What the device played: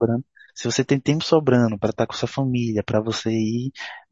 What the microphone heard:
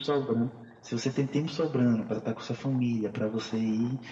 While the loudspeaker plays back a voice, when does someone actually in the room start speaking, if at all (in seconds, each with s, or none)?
none